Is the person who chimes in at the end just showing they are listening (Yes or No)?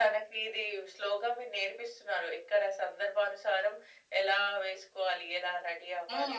No